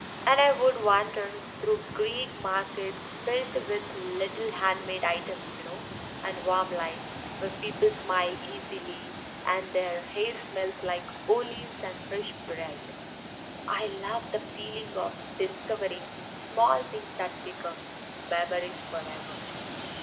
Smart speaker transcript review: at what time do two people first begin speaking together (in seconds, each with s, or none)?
none